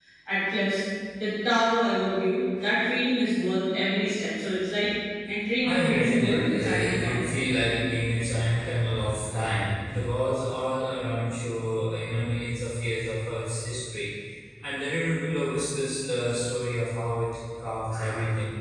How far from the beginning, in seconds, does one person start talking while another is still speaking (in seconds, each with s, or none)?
5.6 s